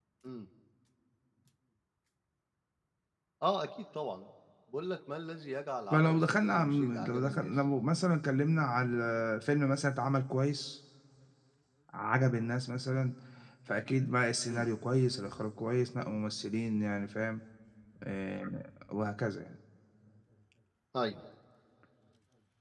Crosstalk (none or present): present